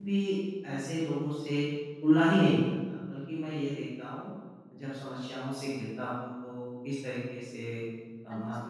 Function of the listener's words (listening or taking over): listening